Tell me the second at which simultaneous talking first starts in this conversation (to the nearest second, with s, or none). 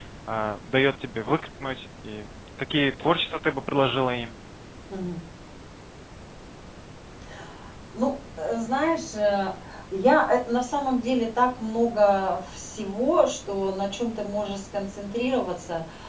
none